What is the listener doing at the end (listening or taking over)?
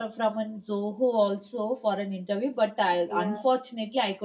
listening